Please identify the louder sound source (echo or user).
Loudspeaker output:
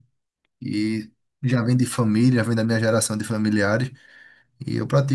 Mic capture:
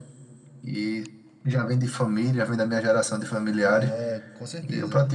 echo